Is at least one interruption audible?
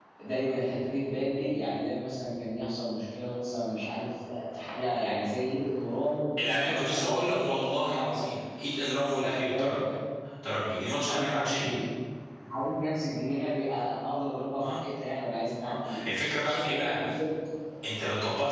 Yes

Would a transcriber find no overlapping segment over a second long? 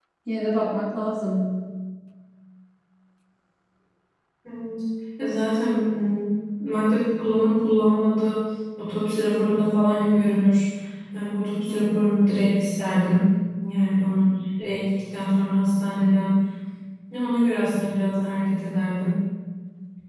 Yes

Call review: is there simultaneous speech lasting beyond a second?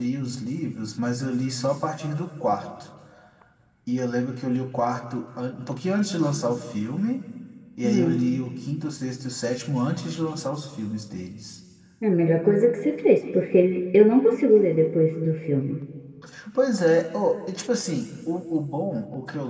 No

